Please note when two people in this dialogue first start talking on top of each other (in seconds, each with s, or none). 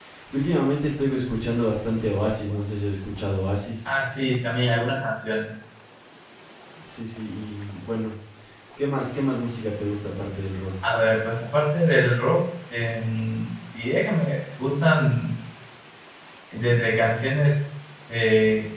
none